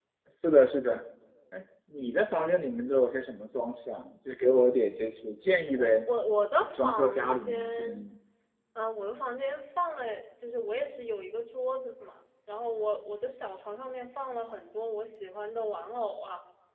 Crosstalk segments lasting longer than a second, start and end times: 6.6-8.0

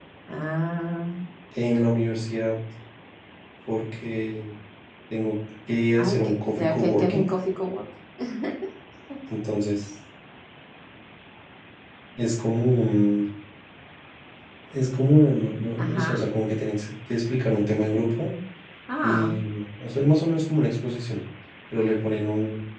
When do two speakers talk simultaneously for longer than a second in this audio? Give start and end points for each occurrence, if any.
6.0-7.2

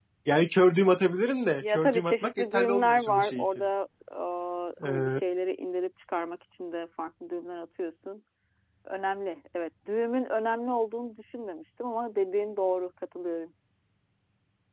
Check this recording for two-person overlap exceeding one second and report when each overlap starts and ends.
1.6-3.6

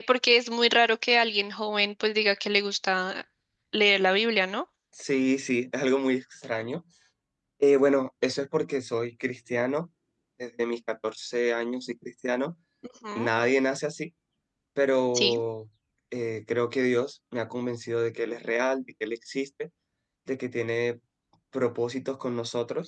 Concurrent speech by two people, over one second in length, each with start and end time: none

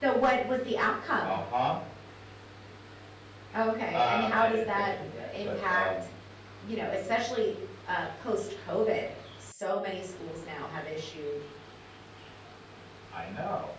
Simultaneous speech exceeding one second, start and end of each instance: 3.9-5.9

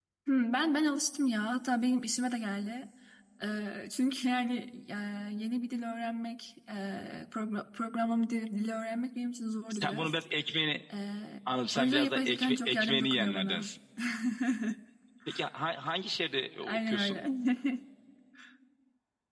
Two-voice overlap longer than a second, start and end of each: 11.8-13.7

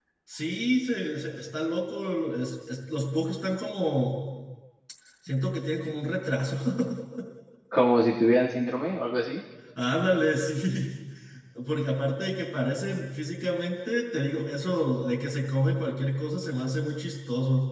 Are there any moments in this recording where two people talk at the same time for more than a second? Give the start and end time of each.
none

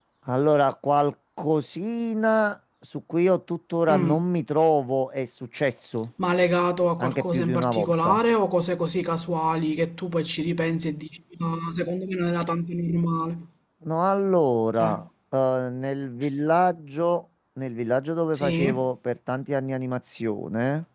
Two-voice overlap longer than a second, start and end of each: 7.0-8.2

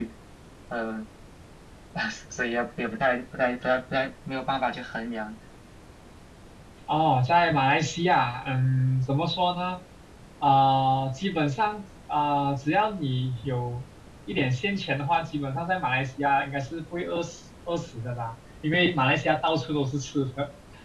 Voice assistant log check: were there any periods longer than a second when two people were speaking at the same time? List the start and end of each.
none

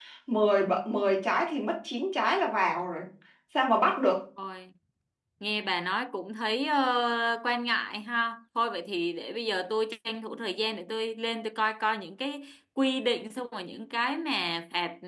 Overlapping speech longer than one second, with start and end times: none

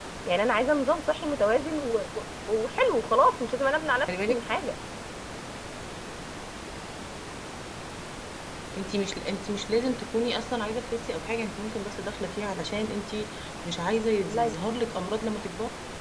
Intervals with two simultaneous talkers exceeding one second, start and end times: none

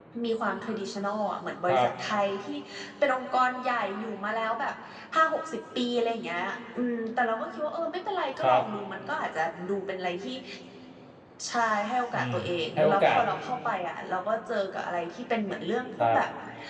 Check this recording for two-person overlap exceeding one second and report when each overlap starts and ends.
none

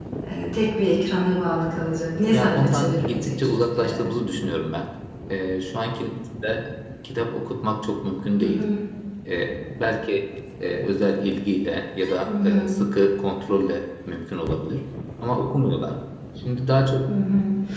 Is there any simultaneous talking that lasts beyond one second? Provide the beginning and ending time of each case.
2.3-4.2

